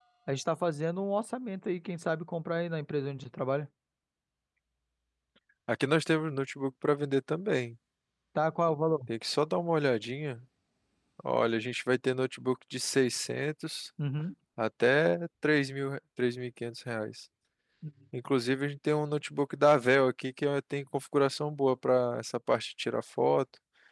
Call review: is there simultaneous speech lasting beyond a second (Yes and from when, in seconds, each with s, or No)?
No